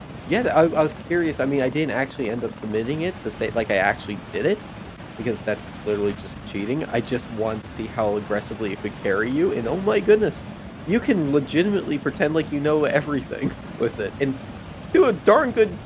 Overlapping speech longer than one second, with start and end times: none

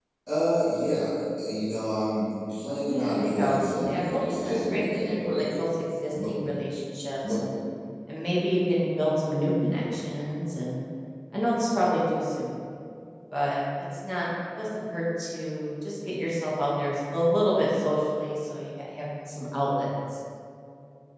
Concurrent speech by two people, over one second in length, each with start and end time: 2.8-5.4

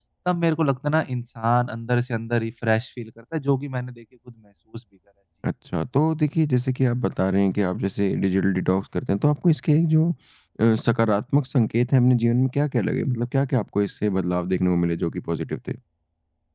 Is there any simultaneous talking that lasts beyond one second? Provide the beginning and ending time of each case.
none

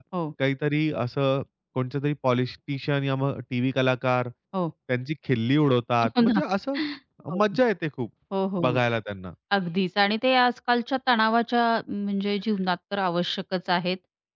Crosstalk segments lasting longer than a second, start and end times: none

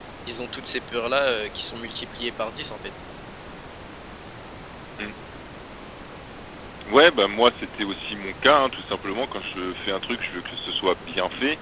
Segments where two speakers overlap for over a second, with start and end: none

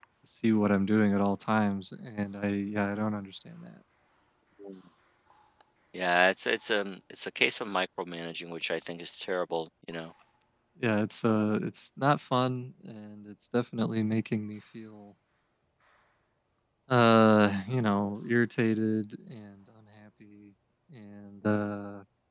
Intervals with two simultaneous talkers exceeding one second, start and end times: none

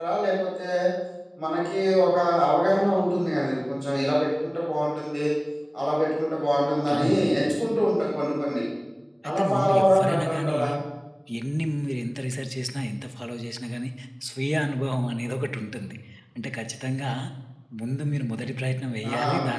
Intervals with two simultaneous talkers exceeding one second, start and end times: 9.3-10.6

